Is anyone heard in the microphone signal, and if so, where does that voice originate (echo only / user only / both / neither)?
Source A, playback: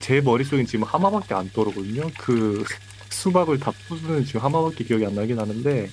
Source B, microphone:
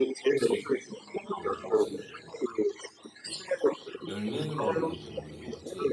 both